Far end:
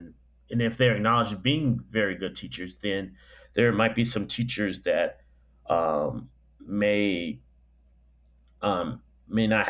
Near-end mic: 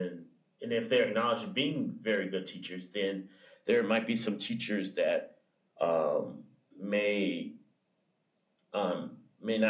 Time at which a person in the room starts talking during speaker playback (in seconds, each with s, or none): none